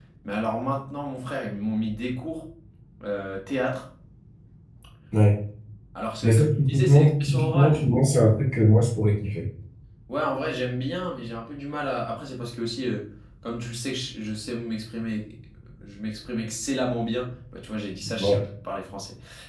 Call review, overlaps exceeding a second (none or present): present